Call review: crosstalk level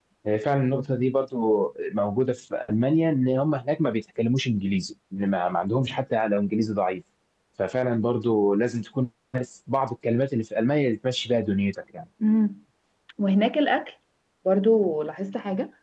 none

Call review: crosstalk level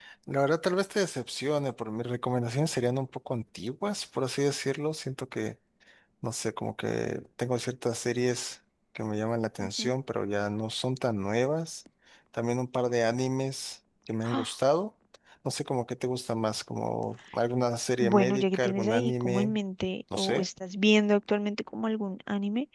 present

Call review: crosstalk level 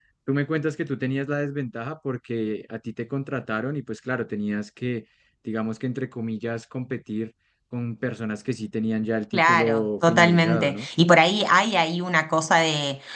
present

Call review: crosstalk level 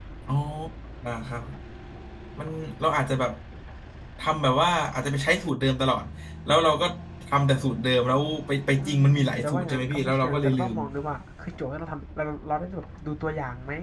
present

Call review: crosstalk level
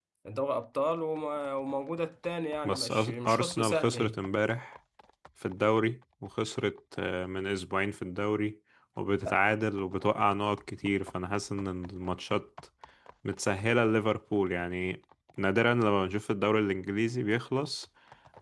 present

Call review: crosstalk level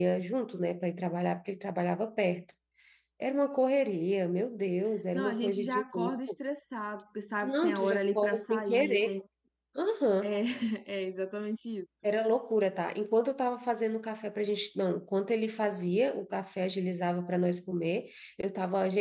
present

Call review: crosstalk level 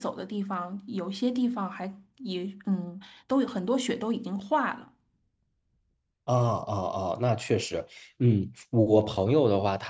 none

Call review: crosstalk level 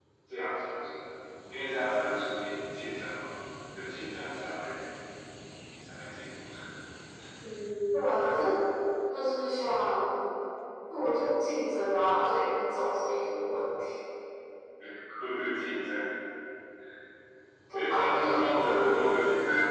present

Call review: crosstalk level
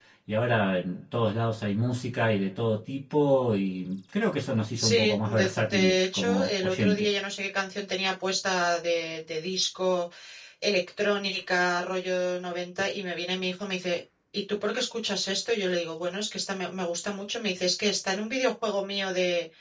present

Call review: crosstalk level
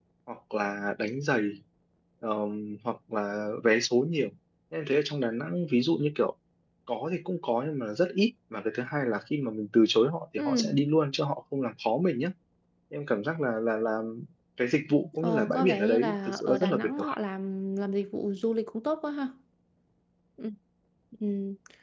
present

